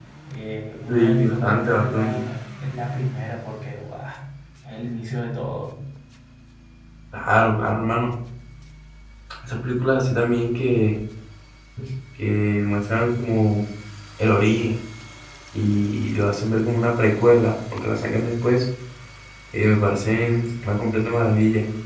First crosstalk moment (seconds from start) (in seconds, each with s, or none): 0.9 s